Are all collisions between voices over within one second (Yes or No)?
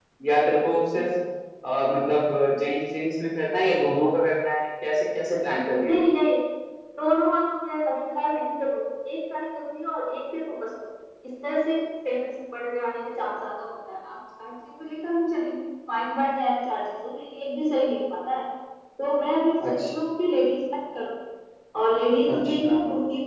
Yes